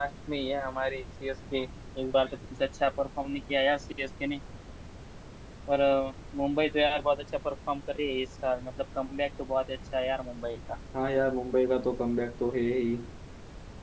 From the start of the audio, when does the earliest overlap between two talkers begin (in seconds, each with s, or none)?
none